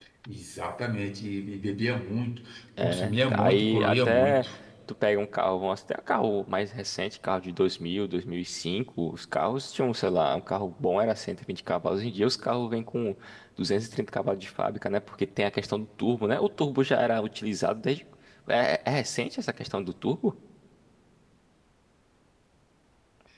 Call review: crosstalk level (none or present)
present